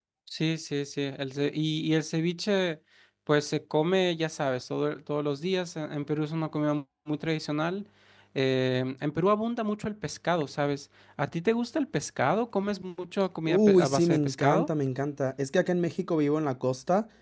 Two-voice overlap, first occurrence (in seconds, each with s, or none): 13.5 s